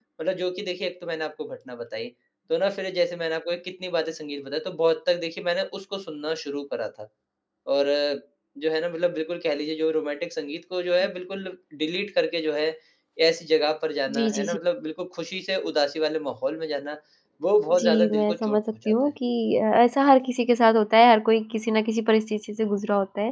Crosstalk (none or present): present